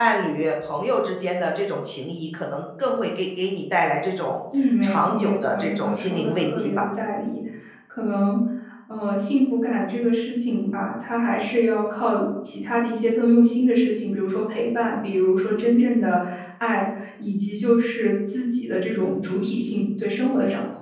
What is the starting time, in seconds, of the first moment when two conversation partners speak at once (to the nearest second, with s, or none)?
5 s